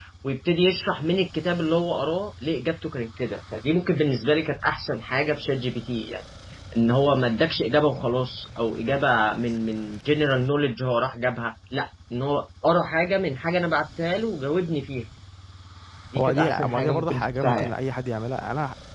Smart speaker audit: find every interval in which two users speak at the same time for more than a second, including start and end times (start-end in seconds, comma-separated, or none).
16.2-17.7